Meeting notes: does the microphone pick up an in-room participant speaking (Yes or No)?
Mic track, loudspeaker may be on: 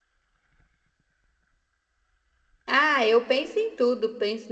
Yes